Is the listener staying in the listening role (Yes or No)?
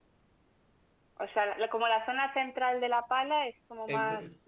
No